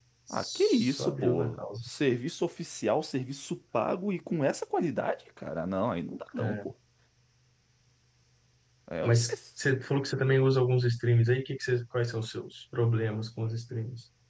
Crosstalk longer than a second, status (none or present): present